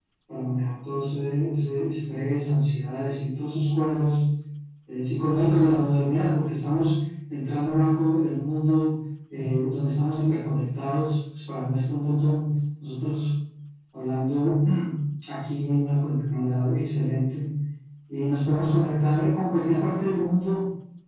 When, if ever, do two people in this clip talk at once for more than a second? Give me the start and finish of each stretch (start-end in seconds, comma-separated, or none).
none